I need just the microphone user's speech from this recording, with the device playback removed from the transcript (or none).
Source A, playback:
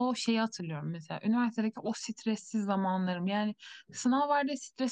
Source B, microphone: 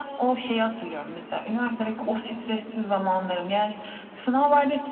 none